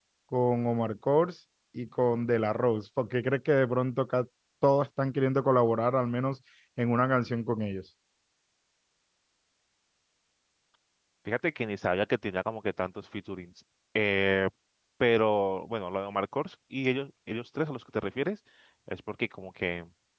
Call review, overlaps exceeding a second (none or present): none